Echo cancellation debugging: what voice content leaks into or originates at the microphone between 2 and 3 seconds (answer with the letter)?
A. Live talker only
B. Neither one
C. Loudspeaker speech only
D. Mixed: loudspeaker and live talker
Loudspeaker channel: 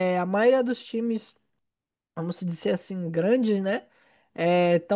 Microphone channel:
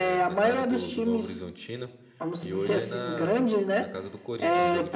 D